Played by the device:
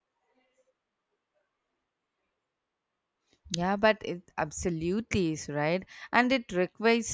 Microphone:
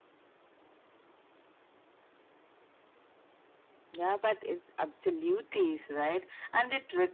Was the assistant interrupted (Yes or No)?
No